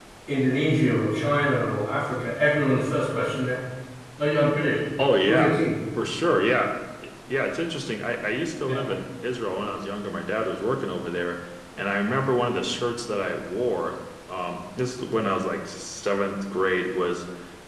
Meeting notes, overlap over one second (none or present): none